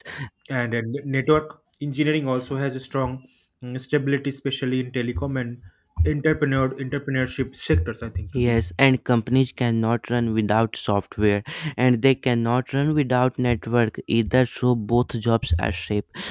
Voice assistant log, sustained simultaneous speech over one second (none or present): none